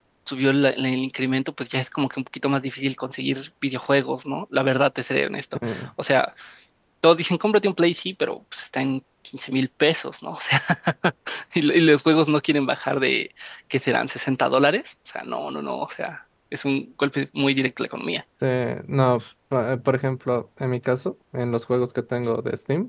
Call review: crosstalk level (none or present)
none